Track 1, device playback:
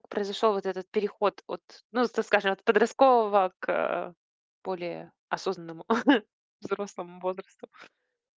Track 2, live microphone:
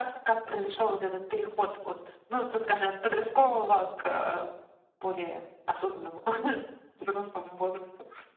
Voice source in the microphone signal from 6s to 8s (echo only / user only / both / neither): echo only